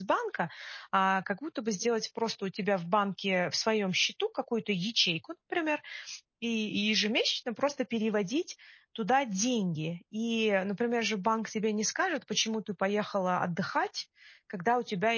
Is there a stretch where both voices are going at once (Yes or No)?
No